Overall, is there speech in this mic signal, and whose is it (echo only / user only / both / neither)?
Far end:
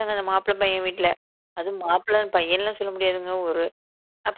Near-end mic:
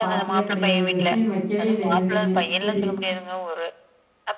both